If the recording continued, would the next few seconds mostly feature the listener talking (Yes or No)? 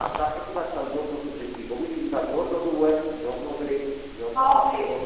Yes